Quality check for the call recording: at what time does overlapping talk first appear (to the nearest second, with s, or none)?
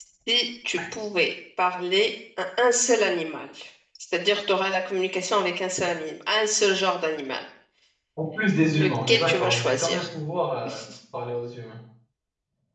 9 s